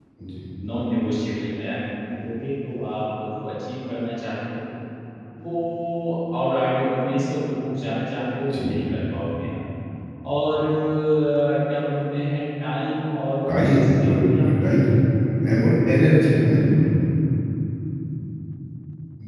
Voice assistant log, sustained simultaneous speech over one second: present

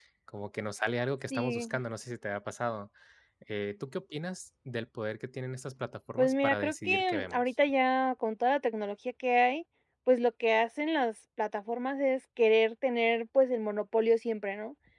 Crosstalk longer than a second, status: present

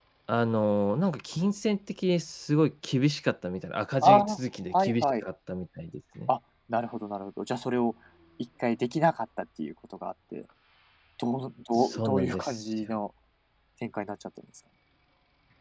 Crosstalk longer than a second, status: present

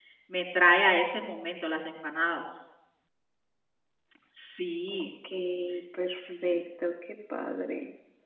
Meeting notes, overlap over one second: none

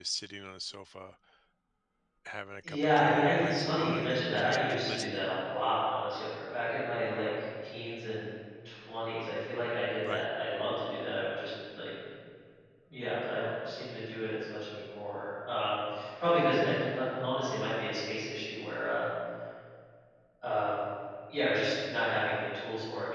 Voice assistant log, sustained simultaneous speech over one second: present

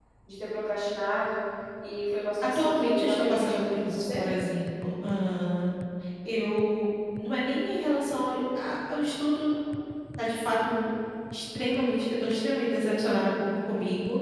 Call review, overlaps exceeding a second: present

